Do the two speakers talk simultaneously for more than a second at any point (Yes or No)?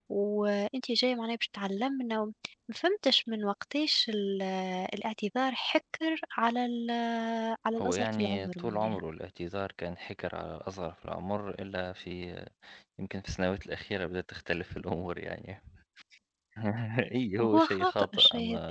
Yes